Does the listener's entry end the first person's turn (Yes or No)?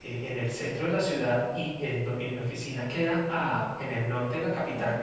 No